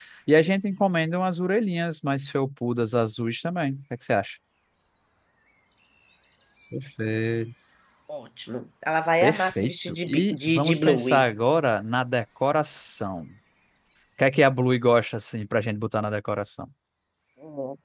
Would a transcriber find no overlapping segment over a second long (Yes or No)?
No